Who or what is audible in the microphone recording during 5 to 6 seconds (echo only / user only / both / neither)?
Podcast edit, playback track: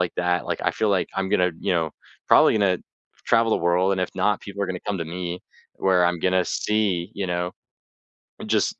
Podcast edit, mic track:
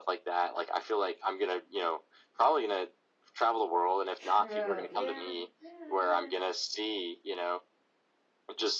both